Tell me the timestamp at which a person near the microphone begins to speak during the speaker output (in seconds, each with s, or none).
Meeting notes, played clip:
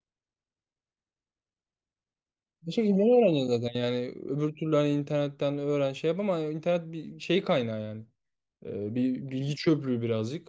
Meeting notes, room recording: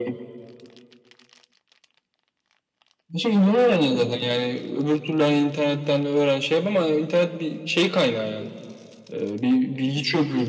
none